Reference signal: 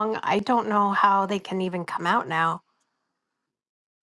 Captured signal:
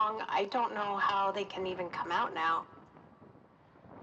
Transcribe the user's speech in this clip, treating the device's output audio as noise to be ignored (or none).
none